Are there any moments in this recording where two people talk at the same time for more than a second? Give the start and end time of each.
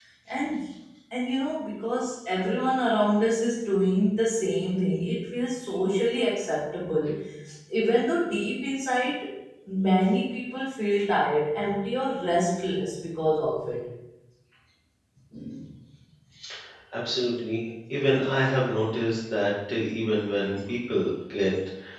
none

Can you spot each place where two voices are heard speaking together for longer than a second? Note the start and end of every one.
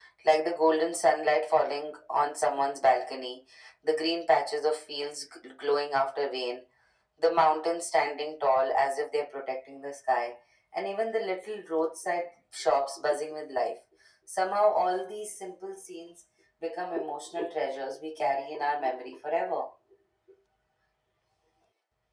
none

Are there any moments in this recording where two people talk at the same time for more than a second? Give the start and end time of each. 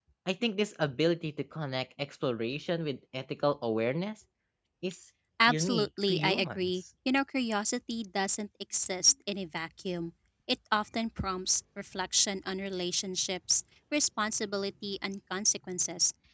5.5-6.8

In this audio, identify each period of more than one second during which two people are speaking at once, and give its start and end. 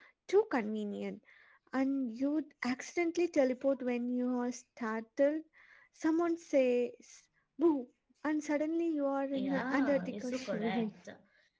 9.3-10.9

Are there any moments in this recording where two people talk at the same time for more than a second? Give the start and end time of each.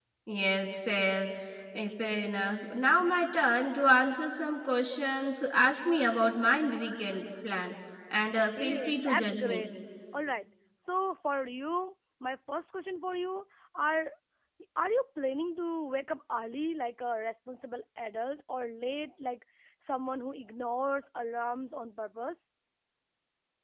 8.4-9.6

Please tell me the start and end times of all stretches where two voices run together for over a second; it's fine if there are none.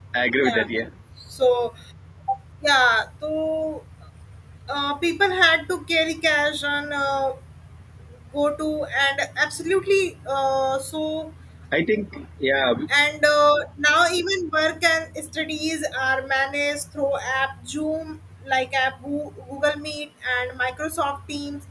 none

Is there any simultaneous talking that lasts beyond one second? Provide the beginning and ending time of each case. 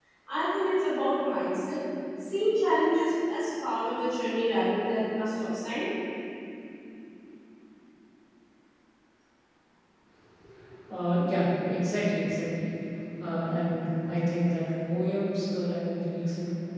none

